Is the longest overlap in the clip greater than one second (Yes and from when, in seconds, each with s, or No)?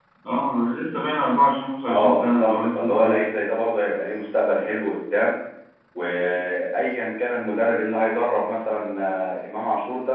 Yes, from 1.9 s